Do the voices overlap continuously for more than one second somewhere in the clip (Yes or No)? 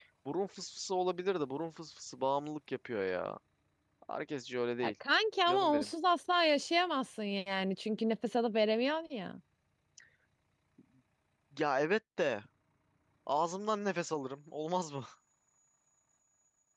No